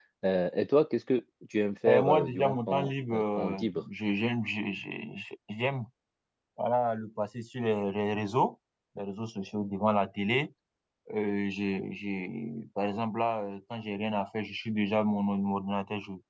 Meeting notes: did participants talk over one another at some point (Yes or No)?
Yes